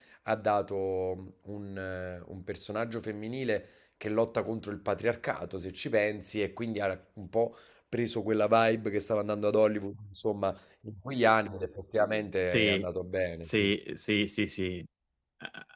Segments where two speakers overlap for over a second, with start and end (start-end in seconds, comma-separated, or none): none